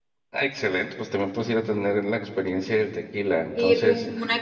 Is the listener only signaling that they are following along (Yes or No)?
No